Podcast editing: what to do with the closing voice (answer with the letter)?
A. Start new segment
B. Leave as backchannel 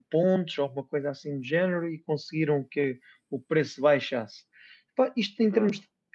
B